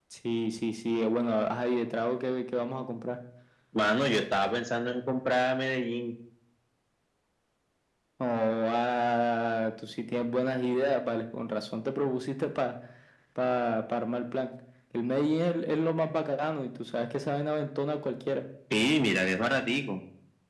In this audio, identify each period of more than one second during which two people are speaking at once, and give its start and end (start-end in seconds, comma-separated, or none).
none